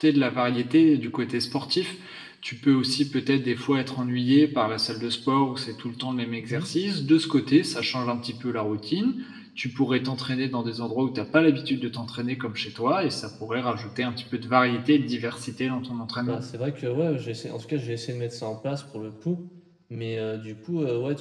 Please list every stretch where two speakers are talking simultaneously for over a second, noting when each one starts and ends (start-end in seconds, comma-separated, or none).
none